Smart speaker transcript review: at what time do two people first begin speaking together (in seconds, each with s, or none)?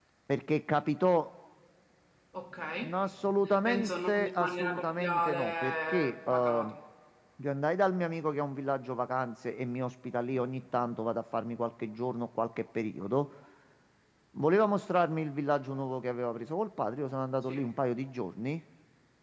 3.6 s